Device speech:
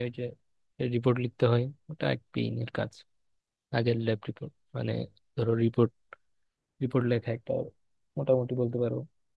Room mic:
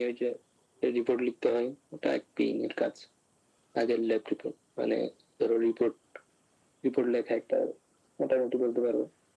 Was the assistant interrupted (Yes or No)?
No